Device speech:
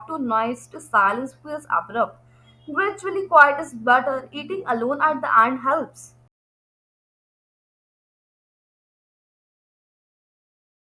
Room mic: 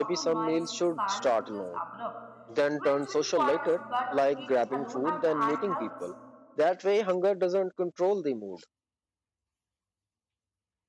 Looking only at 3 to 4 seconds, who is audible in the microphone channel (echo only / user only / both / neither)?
both